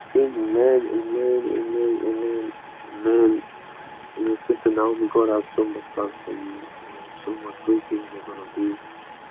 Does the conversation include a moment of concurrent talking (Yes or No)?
No